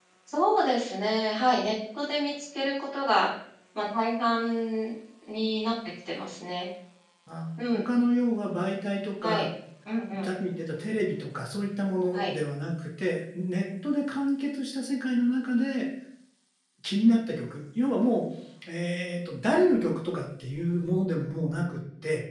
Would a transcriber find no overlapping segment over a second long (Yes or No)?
Yes